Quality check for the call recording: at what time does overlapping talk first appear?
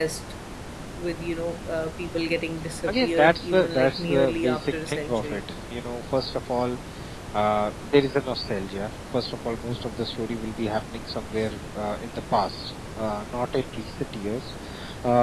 2.9 s

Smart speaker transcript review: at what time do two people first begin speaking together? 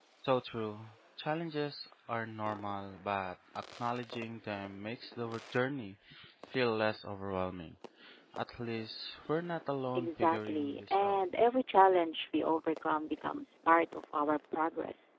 9.9 s

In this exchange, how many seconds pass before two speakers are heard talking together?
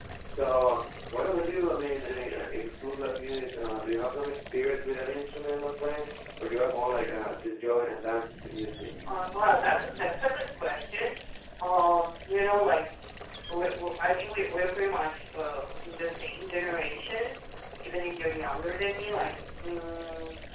none

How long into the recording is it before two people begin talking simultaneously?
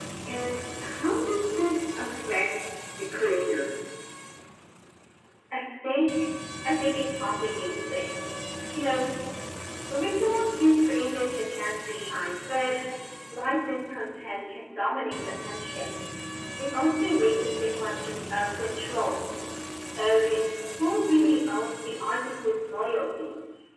none

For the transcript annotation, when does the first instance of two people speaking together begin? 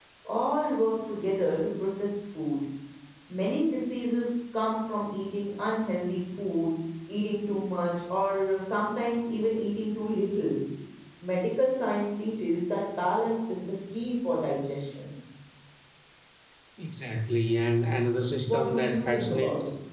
18.4 s

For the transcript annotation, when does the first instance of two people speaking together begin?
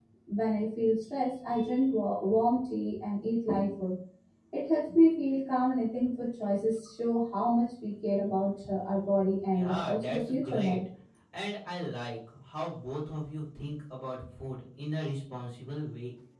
9.5 s

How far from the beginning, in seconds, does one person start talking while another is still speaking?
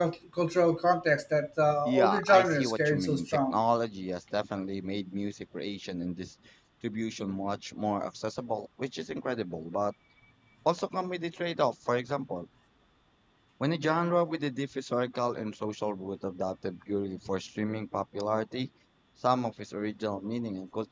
1.9 s

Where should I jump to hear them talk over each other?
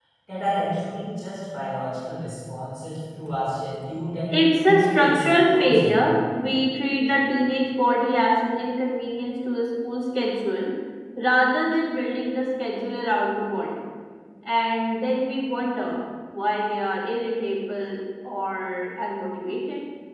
4.3 s

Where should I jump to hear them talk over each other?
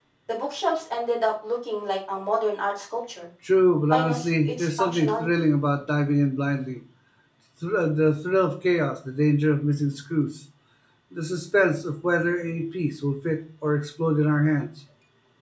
3.9 s

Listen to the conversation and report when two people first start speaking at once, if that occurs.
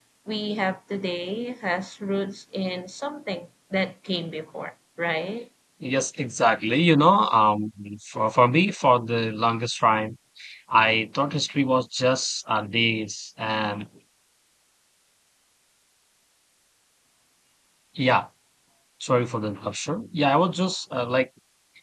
none

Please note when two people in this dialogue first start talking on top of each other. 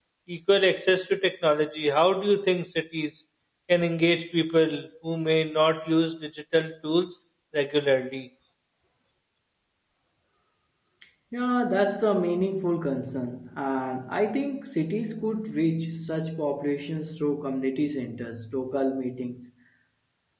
none

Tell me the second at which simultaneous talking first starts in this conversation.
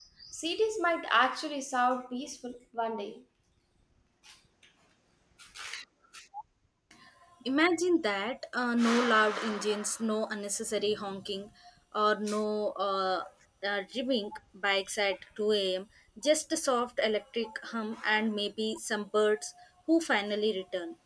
none

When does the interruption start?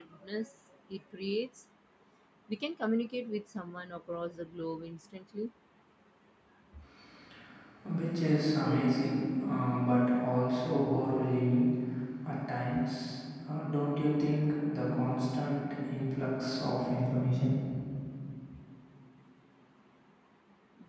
none

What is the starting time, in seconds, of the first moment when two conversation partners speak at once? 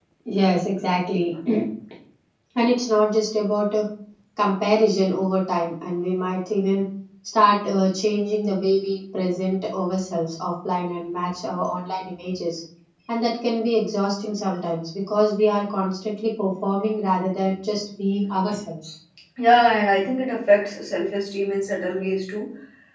none

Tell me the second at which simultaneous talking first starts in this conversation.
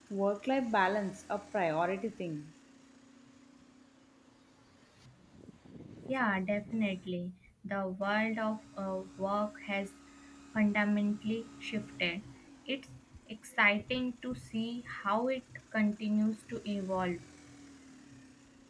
none

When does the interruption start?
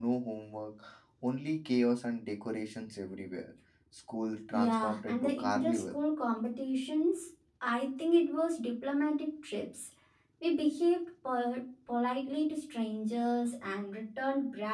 4.5 s

